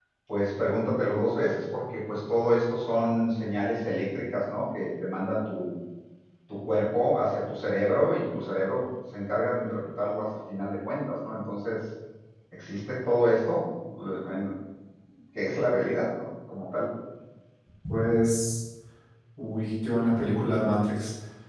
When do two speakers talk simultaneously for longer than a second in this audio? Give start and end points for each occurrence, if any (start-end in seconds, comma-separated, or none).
none